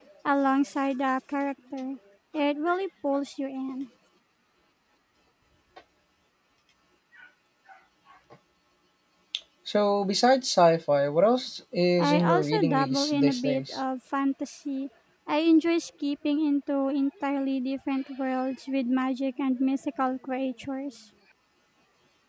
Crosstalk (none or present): present